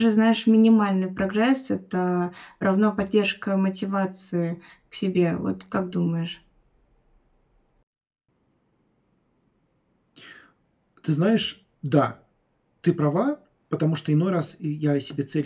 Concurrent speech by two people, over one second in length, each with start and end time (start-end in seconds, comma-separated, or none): none